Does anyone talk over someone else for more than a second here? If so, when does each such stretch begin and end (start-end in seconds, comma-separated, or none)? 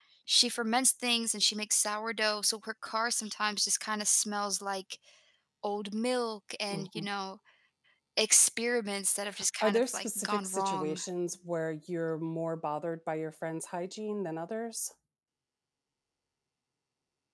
9.6-11.0